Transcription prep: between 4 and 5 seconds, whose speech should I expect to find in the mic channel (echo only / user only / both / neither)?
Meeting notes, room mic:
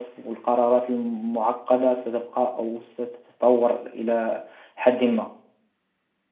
user only